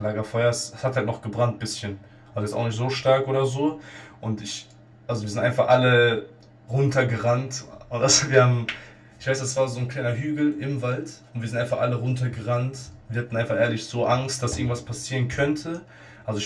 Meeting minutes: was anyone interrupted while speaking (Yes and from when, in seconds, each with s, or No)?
No